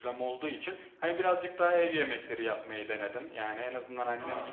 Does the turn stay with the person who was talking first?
Yes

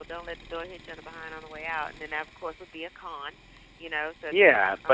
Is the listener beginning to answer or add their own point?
Yes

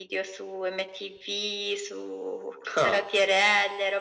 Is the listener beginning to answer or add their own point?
No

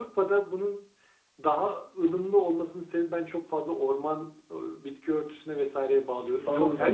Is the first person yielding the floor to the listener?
Yes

